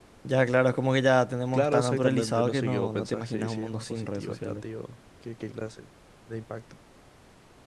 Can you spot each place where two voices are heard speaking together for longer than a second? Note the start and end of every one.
1.5-4.6

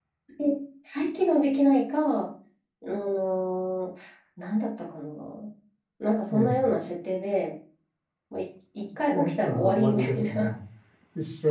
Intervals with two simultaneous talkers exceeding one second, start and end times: 9.1-10.5

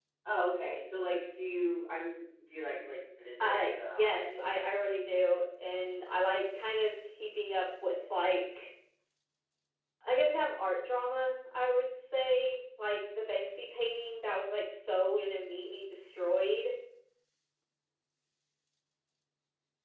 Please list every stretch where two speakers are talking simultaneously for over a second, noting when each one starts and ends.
3.4-4.8

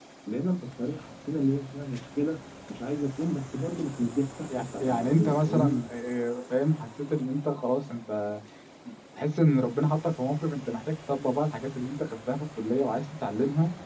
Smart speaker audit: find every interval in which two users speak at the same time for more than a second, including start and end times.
4.6-5.8

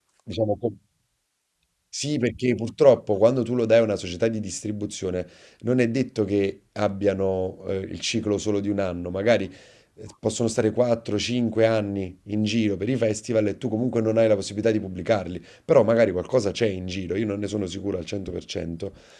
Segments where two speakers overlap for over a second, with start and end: none

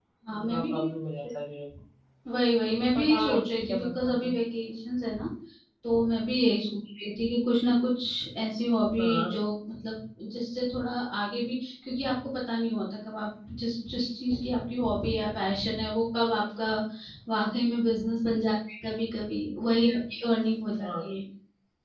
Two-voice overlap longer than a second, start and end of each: 2.9-4.3

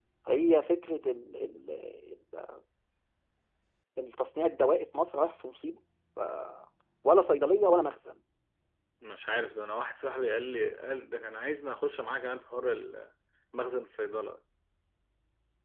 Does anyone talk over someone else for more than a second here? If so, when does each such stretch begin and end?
none

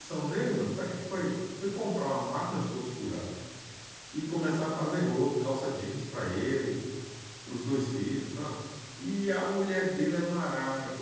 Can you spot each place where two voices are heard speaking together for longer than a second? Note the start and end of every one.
none

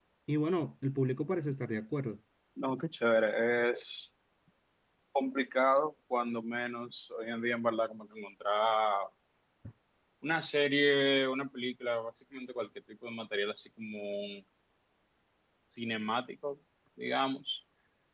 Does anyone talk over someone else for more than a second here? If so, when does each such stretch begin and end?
none

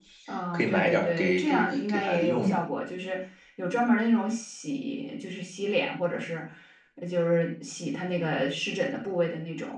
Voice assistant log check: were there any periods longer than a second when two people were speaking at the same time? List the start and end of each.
0.5-2.6

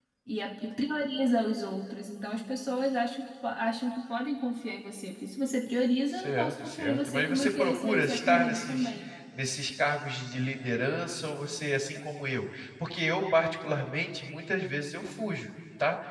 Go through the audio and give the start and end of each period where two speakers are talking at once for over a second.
6.1-8.9

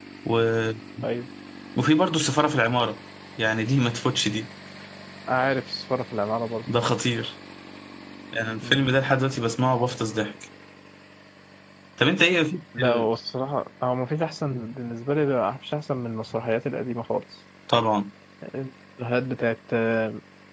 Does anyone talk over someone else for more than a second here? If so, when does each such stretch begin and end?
none

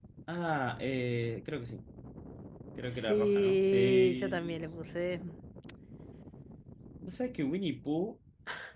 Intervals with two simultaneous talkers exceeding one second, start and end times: 2.8-4.4

